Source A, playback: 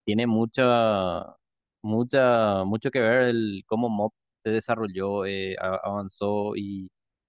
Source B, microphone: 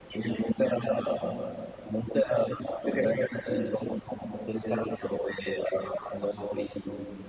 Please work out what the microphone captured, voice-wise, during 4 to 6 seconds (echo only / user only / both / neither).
echo only